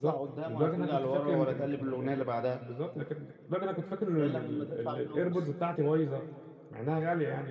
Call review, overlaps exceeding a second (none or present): present